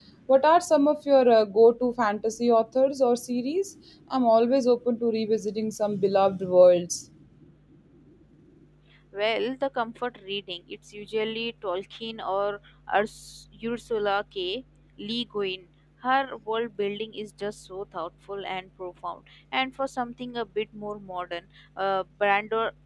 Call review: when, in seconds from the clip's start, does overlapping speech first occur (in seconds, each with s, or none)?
none